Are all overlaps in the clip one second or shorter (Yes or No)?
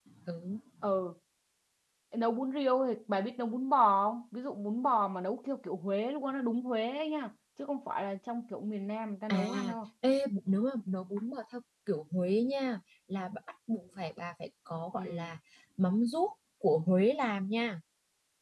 Yes